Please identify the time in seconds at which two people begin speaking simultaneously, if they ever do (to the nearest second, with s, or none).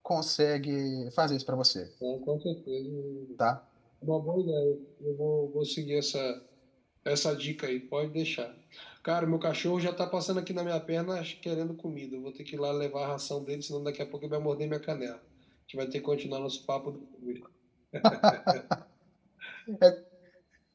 none